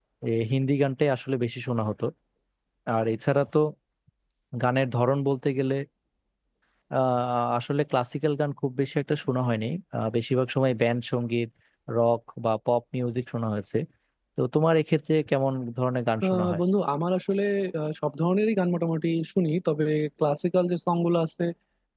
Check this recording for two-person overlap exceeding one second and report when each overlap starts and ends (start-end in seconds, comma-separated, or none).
none